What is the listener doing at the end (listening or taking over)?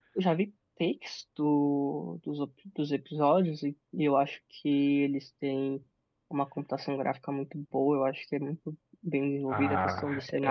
taking over